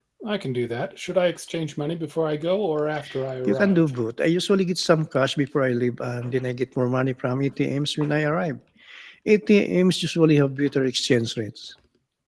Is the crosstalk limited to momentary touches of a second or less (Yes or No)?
Yes